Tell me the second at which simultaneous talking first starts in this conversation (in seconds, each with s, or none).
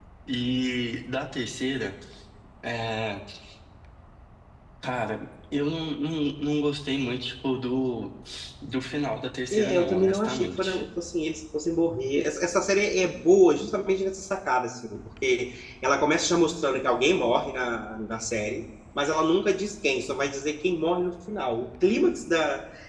9.5 s